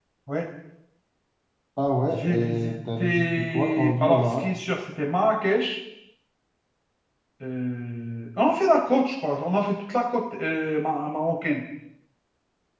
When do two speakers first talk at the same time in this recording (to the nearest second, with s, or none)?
2 s